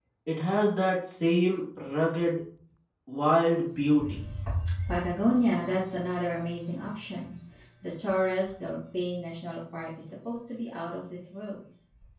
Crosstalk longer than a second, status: none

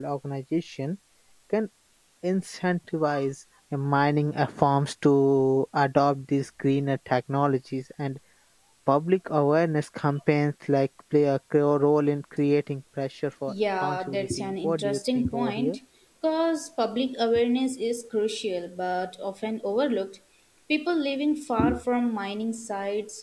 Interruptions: present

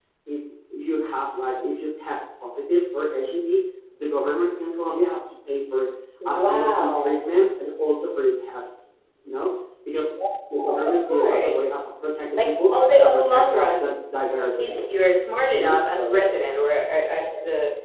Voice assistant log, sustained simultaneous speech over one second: present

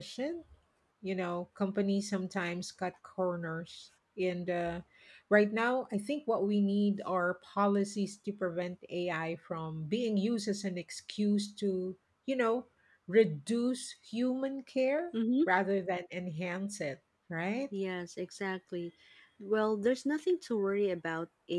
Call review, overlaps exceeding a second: none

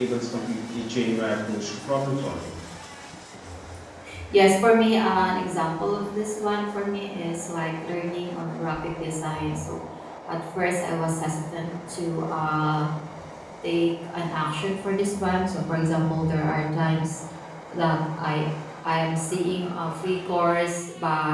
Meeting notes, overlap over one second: none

